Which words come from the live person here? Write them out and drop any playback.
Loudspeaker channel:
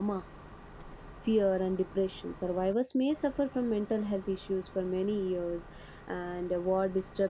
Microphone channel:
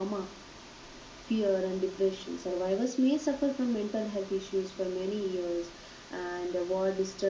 none

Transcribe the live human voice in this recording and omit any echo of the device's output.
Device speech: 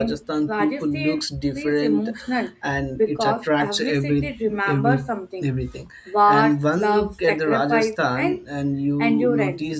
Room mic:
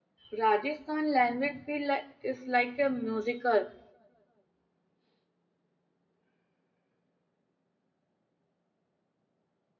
Rajasthan language feel like, is like a musical.

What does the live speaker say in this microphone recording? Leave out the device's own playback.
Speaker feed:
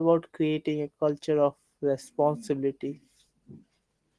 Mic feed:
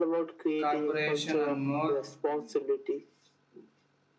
corporation and more

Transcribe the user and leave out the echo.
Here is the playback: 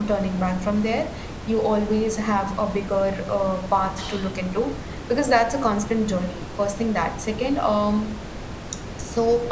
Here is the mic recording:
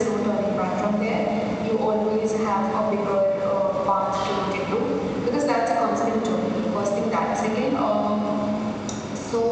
none

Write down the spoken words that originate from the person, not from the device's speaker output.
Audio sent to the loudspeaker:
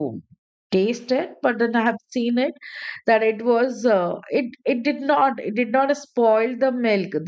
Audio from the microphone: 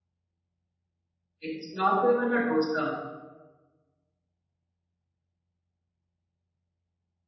It's not even a dosa.

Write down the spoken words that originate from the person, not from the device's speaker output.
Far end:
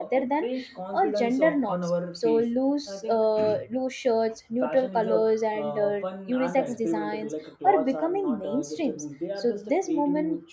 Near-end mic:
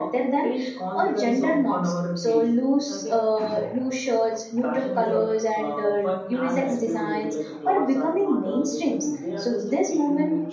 none

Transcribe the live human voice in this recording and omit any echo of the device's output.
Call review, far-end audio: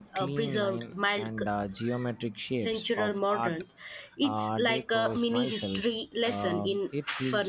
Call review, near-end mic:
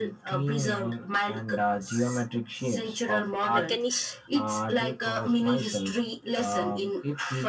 mechanish

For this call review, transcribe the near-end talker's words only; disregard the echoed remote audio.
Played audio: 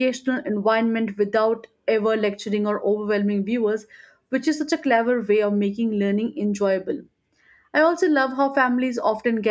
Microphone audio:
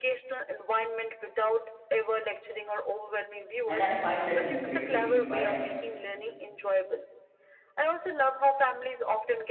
And I find that incredibly inspiring.

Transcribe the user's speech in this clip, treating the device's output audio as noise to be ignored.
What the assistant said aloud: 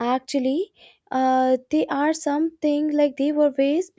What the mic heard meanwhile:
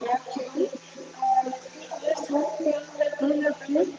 none

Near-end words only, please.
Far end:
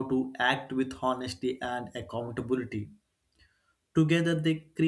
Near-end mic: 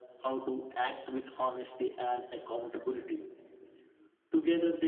none

